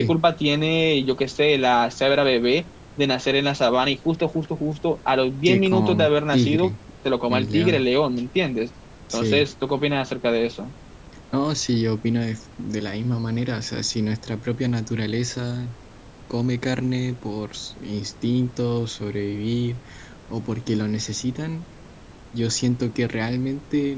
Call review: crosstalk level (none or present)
present